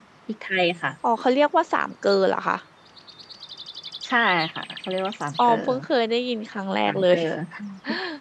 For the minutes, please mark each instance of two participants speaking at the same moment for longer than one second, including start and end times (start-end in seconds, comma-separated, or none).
none